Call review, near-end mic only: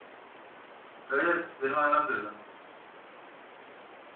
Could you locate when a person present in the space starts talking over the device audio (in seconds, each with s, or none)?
1.1 s